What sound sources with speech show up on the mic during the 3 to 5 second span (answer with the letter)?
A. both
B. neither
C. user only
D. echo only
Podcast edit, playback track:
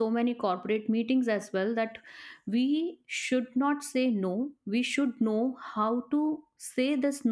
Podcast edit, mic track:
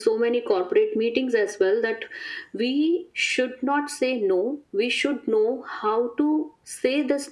D